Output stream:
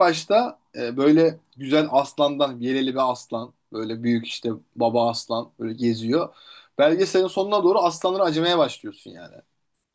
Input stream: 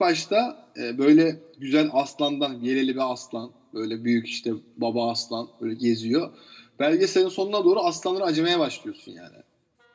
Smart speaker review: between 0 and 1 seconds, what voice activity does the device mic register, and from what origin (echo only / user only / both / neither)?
echo only